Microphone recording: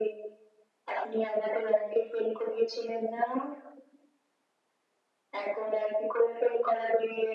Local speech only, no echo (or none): none